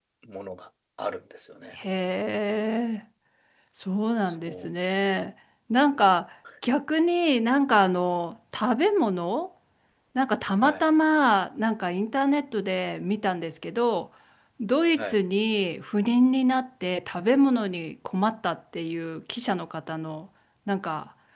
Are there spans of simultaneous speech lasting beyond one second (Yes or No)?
No